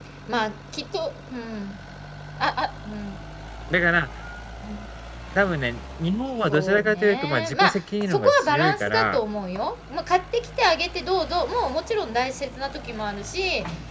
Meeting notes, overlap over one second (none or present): present